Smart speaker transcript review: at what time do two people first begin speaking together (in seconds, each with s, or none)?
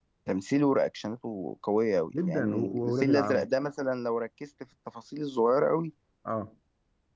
2.1 s